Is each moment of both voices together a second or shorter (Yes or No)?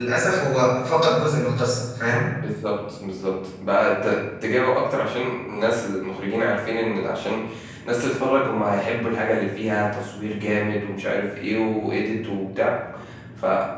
Yes